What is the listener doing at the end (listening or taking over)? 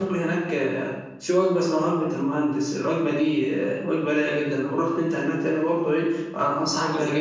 listening